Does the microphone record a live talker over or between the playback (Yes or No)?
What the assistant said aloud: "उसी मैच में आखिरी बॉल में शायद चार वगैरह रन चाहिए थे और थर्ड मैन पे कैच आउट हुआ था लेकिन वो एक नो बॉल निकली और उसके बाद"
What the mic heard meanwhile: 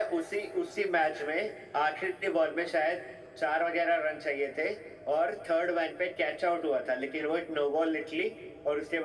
No